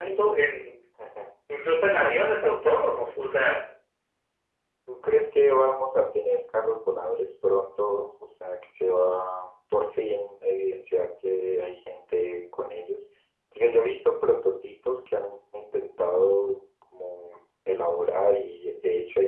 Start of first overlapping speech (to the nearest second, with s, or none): none